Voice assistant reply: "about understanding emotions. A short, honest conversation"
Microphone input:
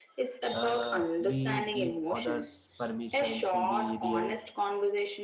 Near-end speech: present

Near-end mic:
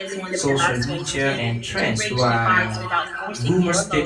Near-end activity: present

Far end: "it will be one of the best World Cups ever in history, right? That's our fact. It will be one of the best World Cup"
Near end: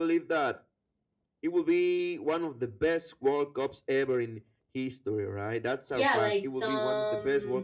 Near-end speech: present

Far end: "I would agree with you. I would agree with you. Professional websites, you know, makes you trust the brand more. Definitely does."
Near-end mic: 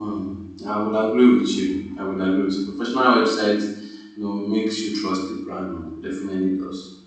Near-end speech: none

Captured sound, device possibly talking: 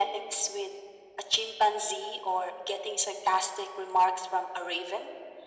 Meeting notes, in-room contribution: none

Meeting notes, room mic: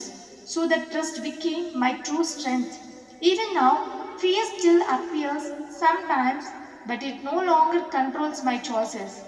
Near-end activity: none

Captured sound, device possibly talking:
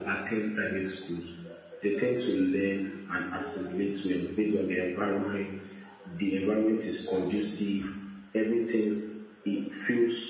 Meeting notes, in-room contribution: none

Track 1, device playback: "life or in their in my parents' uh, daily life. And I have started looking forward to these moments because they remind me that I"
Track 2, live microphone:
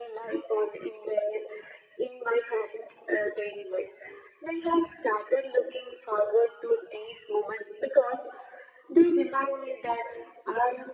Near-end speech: none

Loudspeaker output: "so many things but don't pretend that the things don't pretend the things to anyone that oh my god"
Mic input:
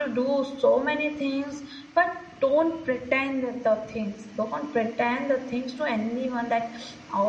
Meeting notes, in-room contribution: none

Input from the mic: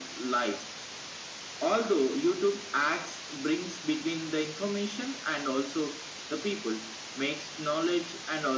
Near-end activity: none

